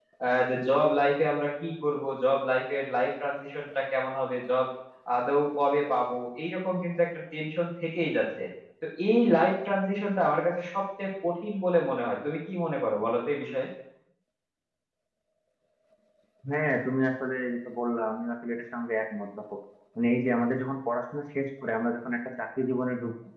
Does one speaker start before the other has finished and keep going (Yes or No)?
No